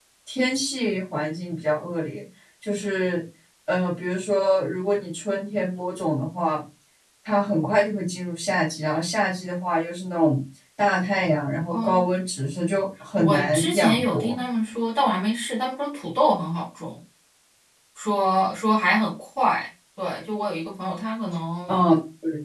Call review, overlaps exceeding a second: present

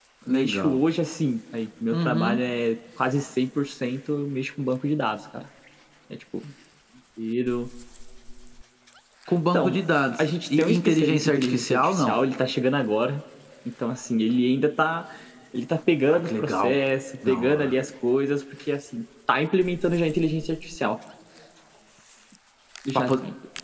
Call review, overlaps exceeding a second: present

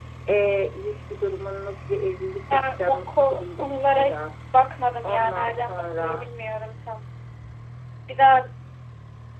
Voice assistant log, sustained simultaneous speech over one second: present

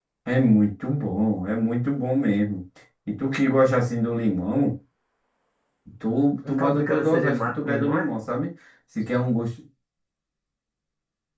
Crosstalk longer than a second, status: present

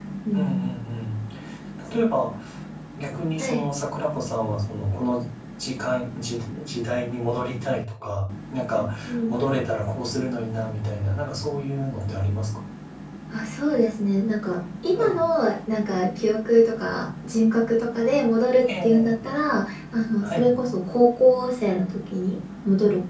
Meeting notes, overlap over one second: none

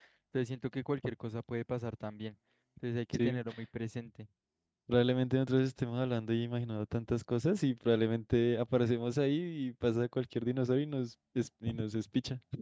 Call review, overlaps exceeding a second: none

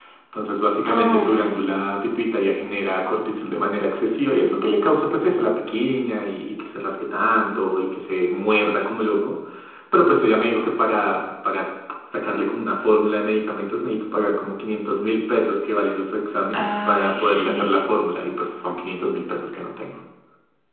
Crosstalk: present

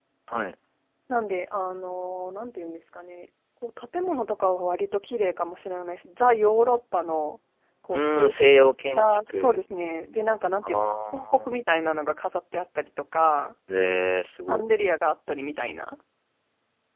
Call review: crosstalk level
present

